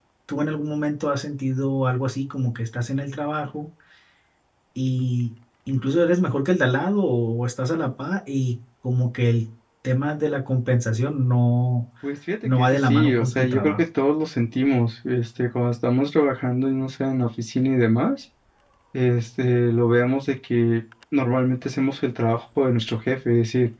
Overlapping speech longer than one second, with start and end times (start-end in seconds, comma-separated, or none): 12.6-13.8